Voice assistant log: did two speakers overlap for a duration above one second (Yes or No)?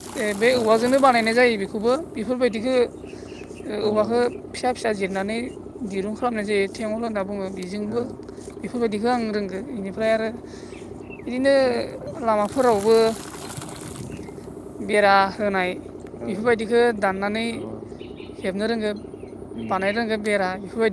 No